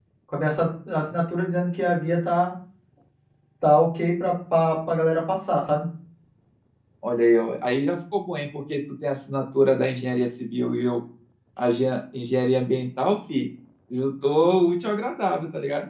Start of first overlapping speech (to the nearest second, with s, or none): none